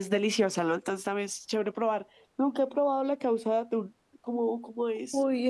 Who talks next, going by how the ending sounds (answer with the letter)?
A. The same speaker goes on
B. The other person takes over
B